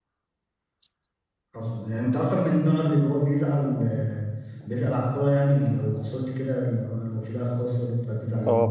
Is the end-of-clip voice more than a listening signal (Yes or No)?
Yes